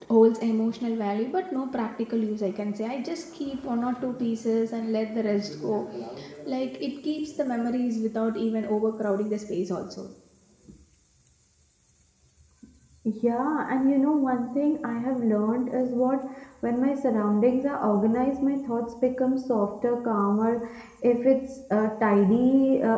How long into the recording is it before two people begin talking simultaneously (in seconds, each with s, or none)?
none